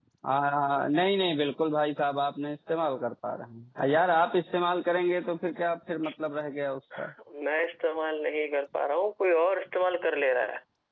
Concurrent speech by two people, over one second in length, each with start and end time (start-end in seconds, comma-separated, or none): none